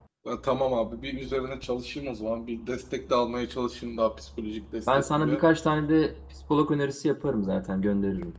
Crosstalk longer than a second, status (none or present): none